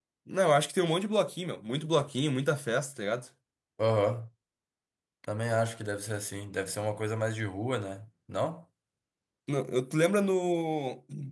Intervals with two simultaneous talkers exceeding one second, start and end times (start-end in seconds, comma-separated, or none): none